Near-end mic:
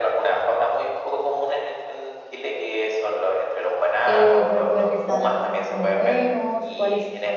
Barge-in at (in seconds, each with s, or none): 4.0 s